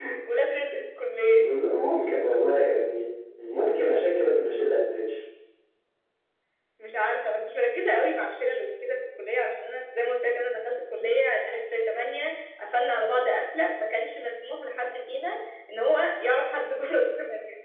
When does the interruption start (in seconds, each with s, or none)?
none